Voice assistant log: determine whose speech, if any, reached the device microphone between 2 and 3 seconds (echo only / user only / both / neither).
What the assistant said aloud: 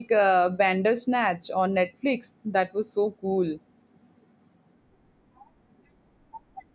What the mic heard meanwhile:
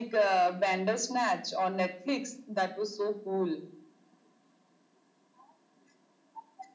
echo only